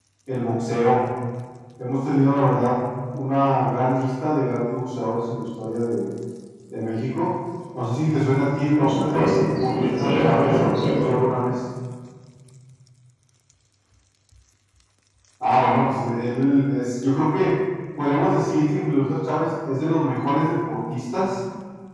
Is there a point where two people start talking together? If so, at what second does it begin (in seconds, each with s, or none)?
8.8 s